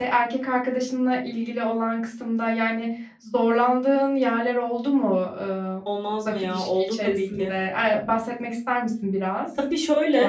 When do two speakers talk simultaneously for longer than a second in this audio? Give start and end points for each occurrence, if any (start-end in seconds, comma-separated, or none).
6.2-7.5